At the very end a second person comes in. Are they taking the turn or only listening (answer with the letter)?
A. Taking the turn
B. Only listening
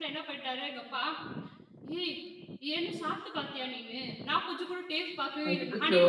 B